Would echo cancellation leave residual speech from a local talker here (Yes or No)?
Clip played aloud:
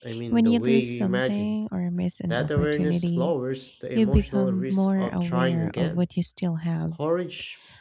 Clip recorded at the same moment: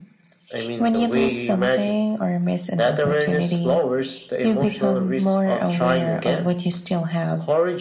No